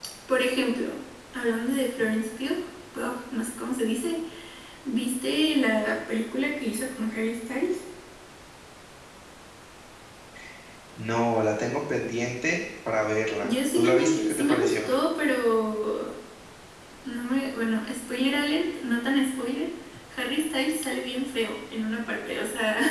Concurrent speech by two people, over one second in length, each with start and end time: 13.4-14.9

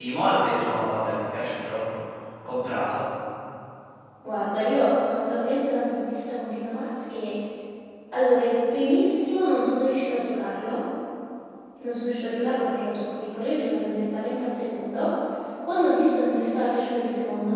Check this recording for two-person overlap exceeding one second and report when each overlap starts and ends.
none

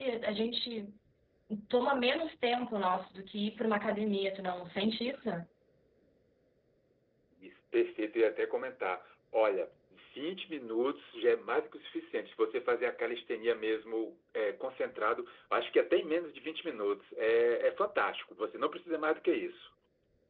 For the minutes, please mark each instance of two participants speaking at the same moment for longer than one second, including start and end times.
none

